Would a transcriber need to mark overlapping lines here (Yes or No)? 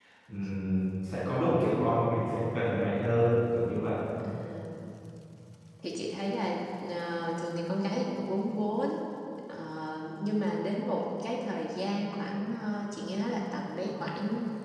No